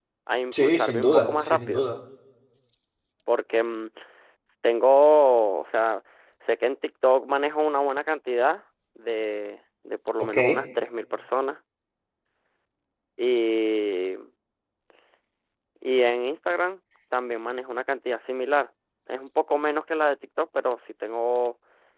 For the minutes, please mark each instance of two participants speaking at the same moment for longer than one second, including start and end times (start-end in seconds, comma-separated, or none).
0.5-1.9